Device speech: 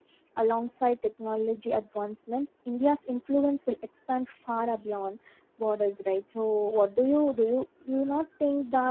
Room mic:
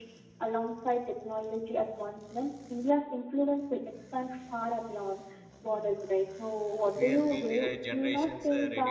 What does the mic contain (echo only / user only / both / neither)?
both